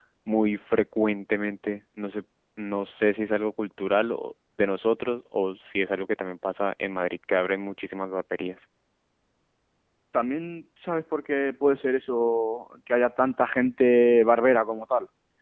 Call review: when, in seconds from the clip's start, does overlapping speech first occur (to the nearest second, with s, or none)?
none